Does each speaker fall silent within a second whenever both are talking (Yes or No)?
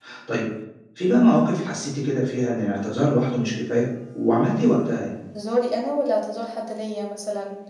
Yes